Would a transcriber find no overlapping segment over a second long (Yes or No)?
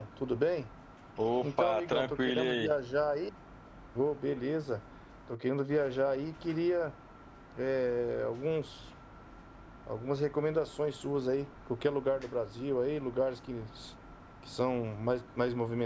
No